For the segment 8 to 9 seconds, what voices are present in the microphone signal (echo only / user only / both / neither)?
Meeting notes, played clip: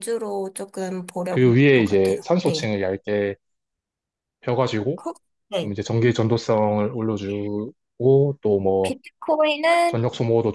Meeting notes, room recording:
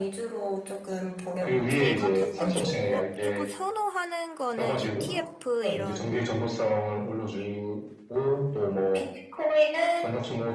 echo only